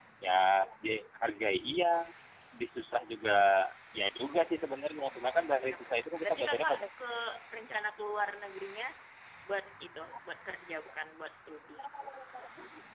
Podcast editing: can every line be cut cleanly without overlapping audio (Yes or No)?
No